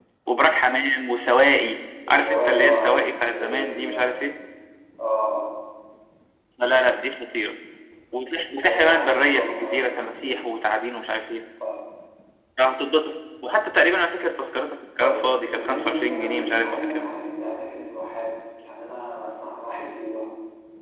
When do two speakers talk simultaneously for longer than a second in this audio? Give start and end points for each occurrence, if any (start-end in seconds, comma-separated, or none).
2.1-4.2, 8.6-10.4, 15.0-17.1